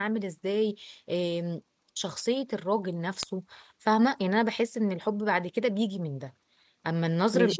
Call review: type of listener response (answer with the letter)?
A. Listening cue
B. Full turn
B